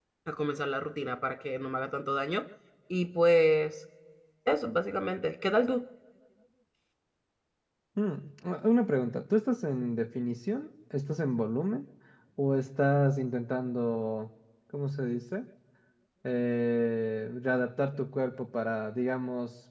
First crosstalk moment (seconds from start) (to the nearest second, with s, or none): none